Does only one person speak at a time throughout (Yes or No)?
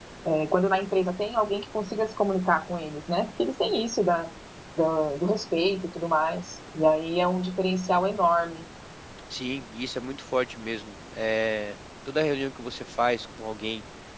Yes